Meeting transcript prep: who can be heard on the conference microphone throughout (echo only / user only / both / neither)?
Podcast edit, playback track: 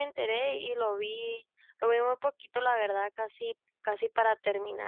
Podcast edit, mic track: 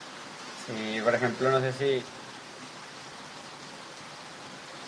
user only